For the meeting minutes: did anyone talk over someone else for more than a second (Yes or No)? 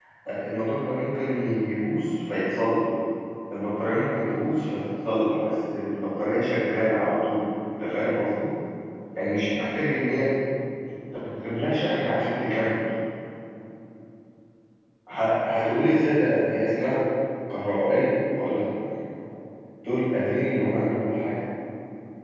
No